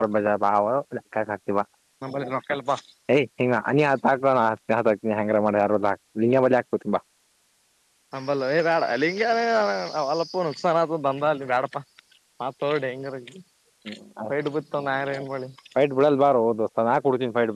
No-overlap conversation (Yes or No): Yes